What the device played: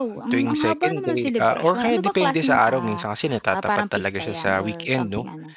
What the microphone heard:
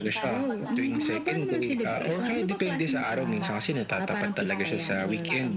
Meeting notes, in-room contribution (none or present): present